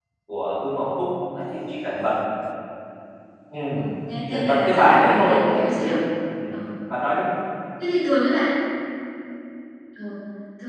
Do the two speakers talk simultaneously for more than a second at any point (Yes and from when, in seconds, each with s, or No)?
Yes, from 4.3 s